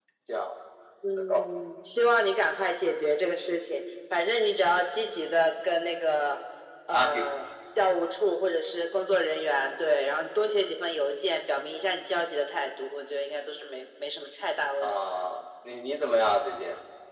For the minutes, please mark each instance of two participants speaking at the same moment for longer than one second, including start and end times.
none

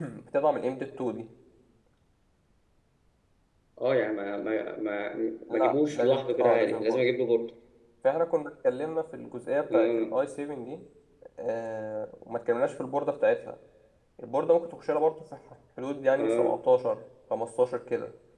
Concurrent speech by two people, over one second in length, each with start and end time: 5.5-7.0

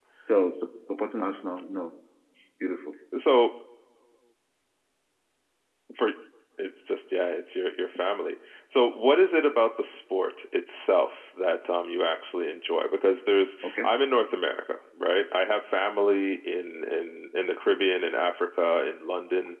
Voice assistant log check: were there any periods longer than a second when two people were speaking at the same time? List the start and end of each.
none

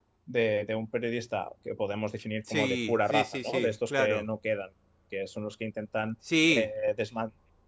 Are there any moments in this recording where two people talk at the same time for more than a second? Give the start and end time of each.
2.5-4.3

